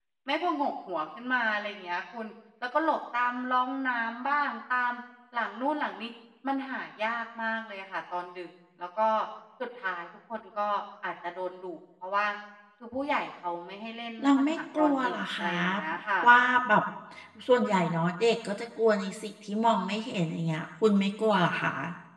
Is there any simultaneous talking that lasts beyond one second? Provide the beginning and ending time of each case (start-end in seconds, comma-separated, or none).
14.2-15.6